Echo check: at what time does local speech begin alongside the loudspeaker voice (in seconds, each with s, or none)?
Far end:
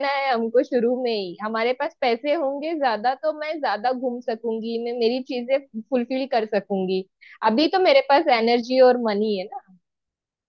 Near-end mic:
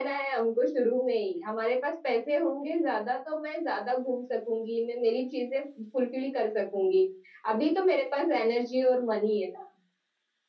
none